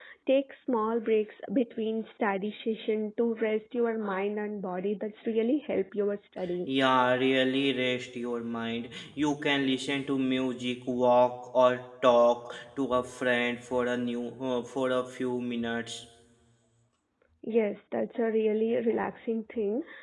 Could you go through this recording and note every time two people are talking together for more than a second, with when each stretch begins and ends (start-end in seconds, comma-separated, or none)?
none